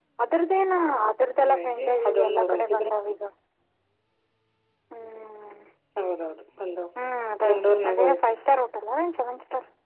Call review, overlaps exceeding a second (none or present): present